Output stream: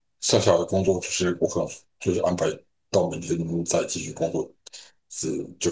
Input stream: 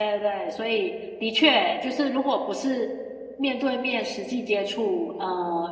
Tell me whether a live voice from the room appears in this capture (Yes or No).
Yes